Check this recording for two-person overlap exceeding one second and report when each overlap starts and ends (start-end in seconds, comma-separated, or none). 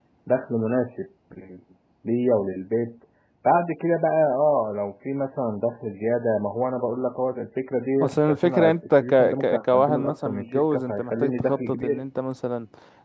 8.0-12.0